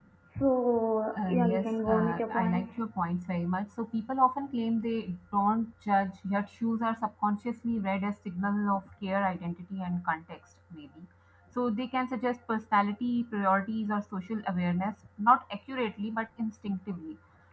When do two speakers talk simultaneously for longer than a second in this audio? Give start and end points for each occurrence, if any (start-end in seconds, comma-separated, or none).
1.2-2.8